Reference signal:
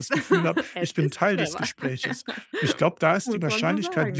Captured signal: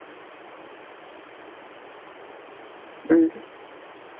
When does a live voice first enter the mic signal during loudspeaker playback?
3.1 s

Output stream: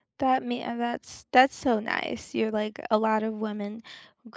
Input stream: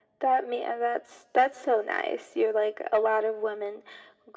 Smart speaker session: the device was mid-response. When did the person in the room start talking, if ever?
none

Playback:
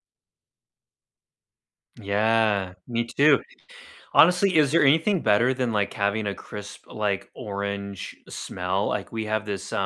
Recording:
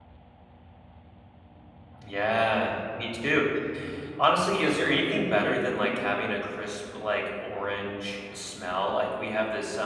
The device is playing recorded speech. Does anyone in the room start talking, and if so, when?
none

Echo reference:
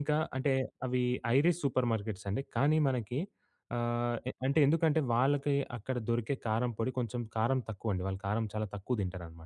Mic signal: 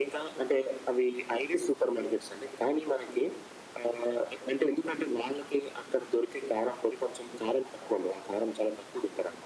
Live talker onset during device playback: none

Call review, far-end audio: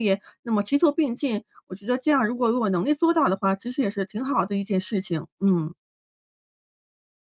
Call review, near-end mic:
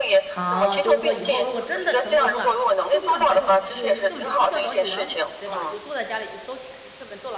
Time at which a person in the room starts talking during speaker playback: 0.3 s

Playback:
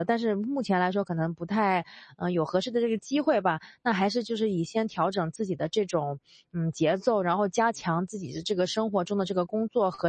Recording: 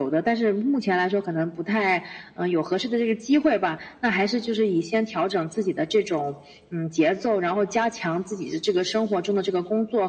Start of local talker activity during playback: none

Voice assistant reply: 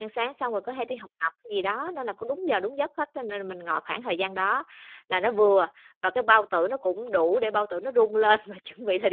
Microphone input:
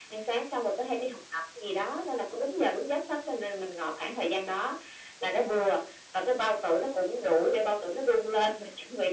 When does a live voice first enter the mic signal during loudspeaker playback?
none

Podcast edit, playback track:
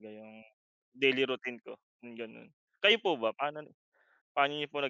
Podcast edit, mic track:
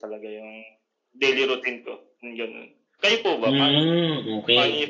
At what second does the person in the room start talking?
3.4 s

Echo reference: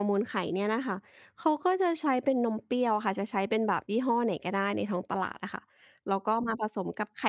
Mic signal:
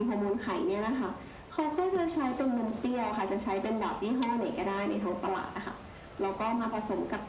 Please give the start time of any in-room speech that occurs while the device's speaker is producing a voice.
none

